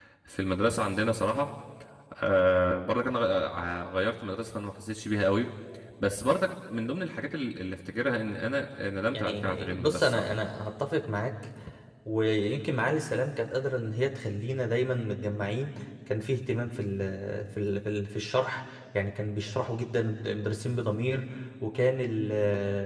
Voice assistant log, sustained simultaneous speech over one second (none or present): present